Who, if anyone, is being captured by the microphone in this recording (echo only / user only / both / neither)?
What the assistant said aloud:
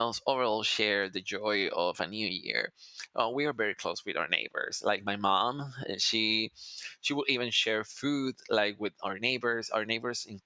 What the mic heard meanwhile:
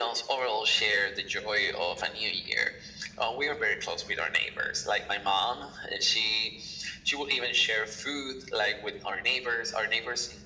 echo only